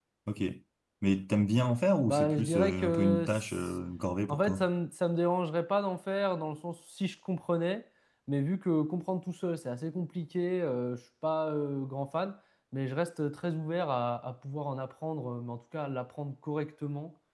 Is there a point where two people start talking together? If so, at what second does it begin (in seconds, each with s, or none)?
2.1 s